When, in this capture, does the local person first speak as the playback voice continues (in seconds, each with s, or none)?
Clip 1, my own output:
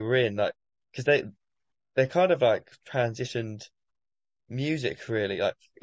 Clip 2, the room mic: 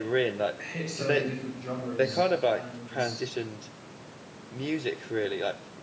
0.6 s